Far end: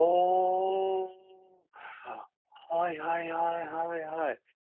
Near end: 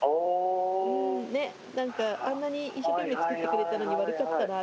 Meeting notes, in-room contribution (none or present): present